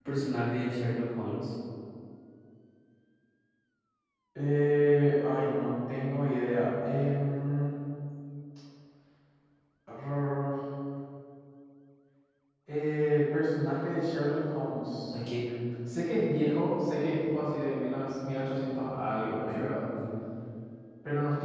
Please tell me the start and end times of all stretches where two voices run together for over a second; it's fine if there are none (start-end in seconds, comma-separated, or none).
none